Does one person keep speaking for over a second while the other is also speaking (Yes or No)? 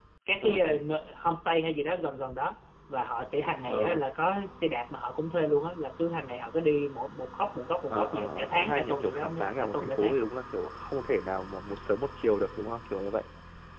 Yes